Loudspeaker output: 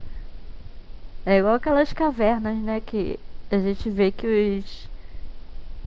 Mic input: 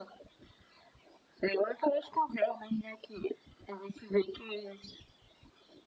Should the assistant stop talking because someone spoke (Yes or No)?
No